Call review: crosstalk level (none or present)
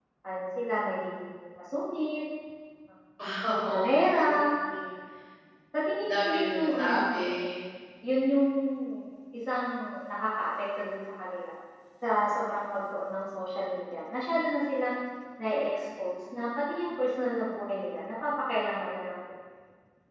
present